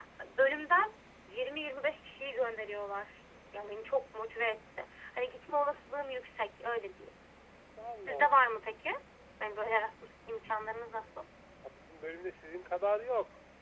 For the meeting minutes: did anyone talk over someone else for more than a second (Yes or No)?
No